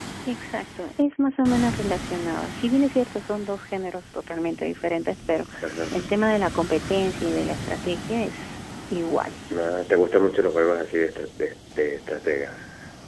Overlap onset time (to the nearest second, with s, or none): none